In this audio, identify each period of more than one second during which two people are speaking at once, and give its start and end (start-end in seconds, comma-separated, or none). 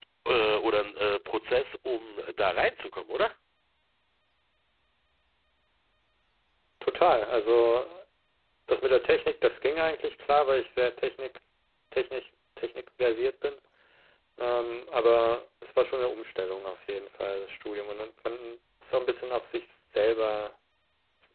none